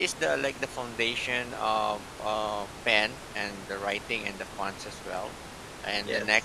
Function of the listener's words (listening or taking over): listening